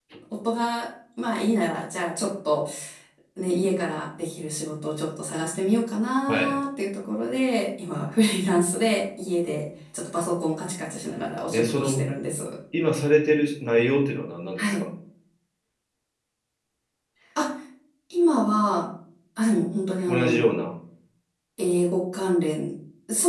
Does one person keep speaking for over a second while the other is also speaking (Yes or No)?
No